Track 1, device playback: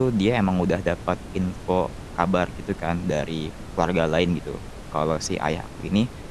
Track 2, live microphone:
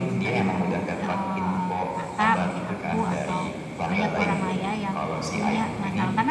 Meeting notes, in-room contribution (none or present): present